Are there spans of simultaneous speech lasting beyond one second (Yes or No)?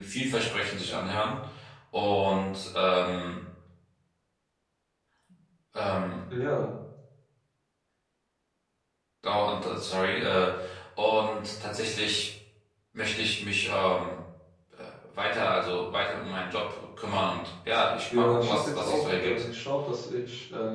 Yes